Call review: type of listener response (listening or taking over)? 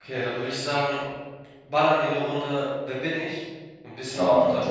taking over